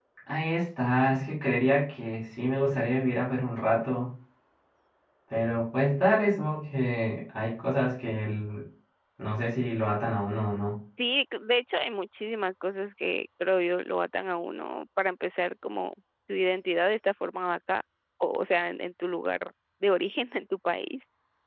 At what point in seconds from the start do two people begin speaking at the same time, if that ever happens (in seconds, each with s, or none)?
none